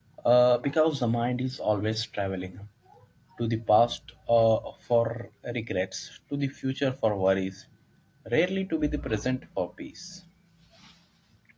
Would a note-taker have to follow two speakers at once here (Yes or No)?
No